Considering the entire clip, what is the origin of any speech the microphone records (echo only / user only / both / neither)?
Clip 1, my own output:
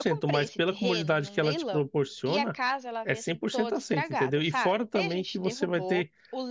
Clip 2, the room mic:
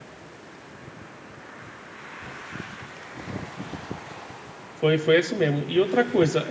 user only